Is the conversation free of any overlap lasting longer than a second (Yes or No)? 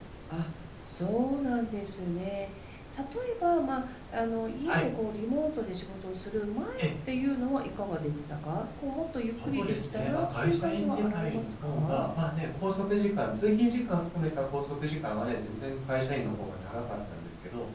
No